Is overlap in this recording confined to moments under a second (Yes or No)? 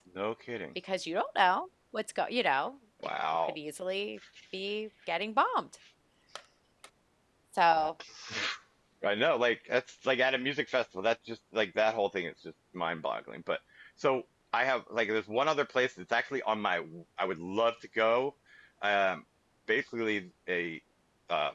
Yes